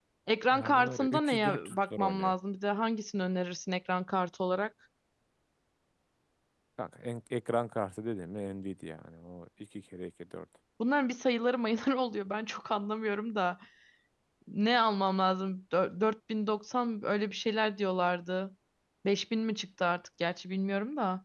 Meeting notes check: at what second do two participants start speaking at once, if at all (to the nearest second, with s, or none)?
1 s